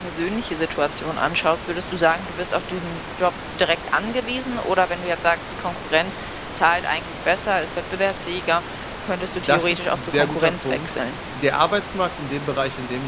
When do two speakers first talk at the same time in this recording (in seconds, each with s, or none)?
9.4 s